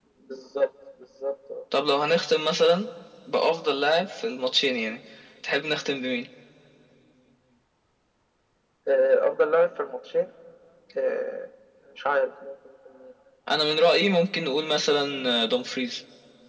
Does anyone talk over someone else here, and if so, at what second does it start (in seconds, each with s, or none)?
none